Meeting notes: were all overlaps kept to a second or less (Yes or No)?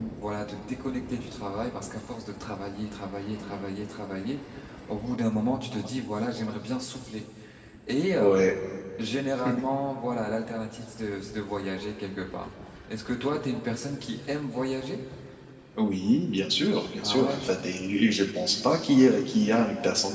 Yes